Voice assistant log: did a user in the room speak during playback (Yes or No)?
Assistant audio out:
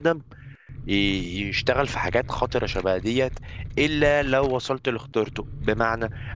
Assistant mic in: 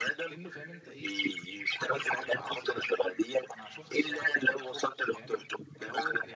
Yes